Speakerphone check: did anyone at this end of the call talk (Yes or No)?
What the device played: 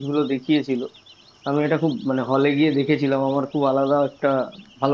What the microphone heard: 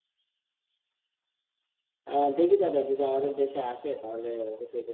Yes